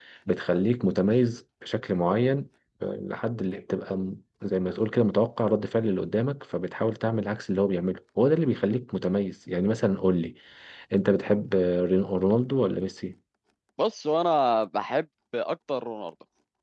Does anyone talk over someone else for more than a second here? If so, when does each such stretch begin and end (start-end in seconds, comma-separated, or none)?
none